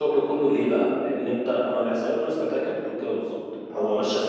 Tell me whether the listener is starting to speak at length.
No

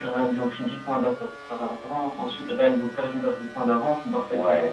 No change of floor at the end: Yes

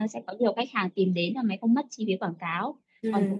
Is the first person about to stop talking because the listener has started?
No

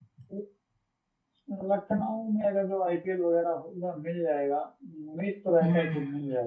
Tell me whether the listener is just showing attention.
Yes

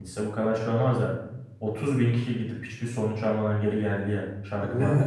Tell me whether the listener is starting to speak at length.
Yes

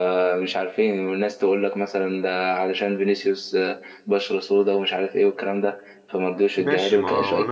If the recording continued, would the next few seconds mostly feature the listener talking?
Yes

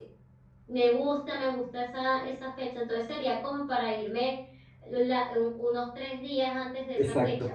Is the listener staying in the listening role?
No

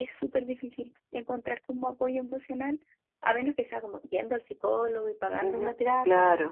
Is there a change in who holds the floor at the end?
Yes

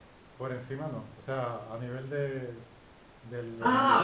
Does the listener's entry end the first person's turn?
Yes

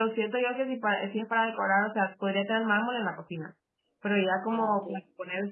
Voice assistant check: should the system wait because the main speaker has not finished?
Yes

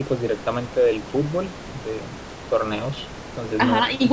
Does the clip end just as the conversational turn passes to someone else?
Yes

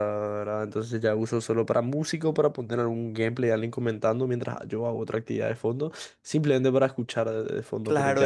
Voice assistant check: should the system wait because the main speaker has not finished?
No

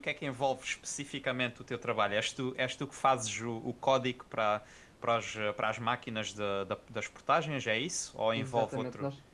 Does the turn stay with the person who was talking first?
No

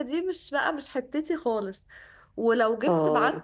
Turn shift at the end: No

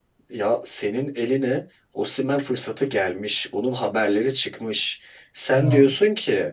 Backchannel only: Yes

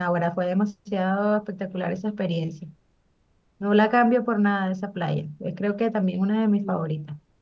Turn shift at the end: Yes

